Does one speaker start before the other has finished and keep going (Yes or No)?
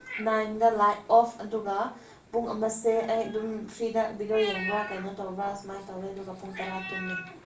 No